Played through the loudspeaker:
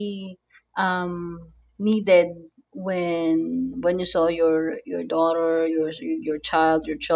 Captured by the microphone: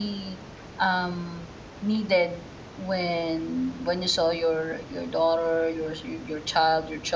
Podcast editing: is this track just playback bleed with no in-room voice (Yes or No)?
Yes